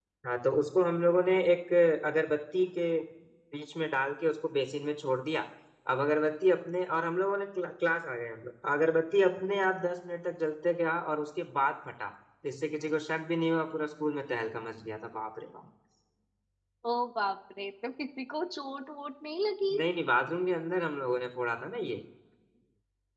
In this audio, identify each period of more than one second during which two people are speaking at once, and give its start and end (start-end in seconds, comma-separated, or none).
none